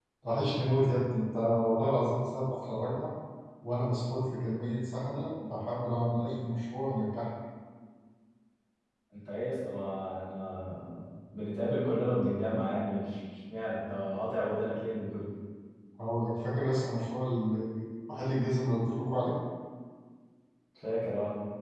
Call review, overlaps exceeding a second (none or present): none